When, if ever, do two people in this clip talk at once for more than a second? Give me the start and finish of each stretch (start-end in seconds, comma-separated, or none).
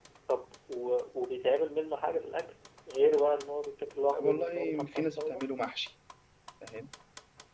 4.1-5.4